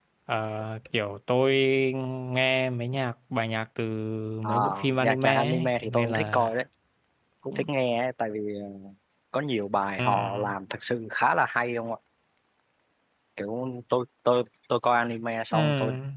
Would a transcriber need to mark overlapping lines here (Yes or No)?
Yes